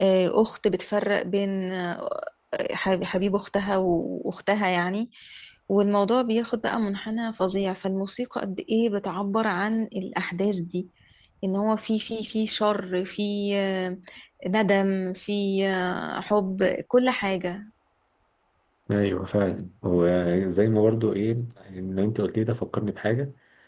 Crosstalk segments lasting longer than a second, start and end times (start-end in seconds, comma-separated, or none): none